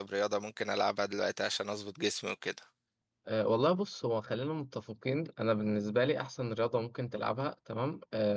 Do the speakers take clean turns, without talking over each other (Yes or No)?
Yes